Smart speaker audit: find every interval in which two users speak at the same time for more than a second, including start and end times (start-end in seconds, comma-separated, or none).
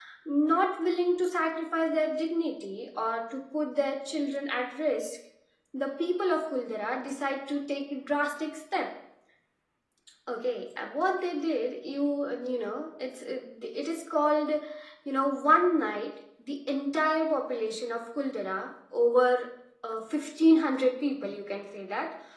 none